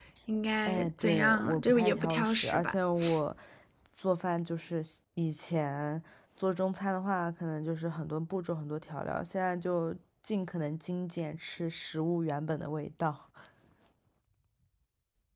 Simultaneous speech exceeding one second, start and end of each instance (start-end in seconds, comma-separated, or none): 0.6-2.8